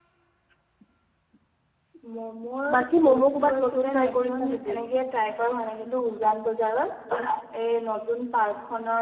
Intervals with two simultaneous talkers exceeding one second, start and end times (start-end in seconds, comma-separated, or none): 2.7-4.8